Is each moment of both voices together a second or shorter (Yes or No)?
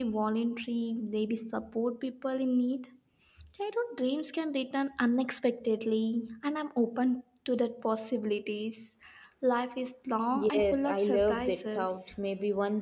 No